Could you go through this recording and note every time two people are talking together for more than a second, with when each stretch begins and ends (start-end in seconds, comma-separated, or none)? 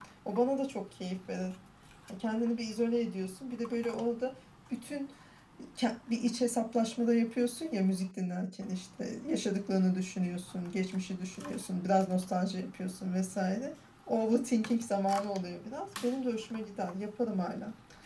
none